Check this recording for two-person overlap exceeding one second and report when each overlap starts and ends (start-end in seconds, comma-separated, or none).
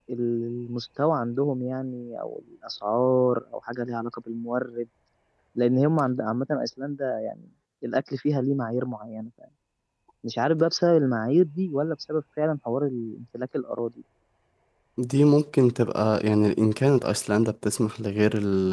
none